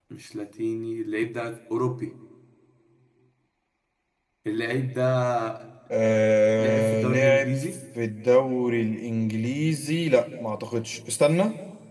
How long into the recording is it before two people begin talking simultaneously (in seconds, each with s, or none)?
6.6 s